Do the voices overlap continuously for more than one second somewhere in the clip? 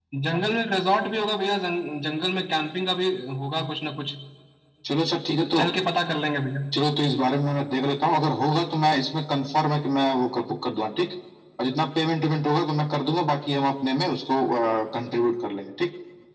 No

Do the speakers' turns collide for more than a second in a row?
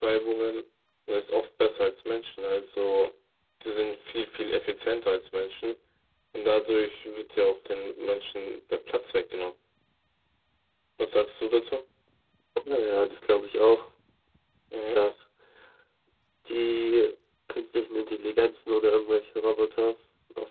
No

